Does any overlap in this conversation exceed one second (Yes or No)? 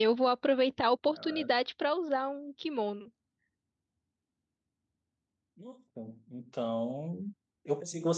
No